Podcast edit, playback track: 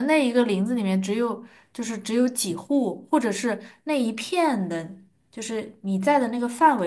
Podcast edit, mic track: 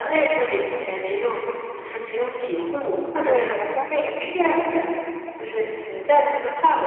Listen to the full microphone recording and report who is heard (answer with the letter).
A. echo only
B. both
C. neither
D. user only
B